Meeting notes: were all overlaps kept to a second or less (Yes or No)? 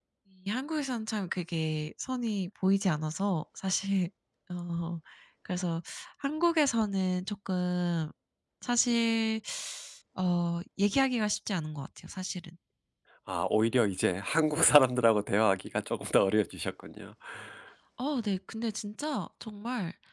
Yes